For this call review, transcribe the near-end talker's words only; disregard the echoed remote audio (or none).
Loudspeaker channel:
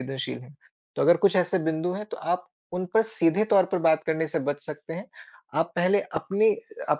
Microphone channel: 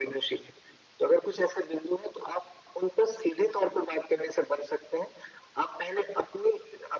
none